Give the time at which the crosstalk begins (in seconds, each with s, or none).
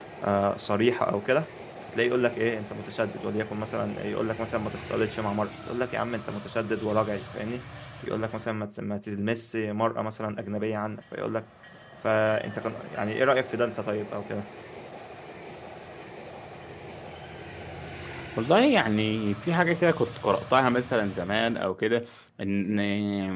none